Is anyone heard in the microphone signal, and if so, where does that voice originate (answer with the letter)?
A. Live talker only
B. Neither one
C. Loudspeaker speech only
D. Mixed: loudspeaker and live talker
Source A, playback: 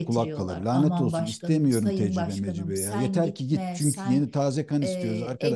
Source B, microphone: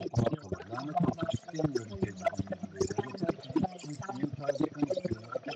C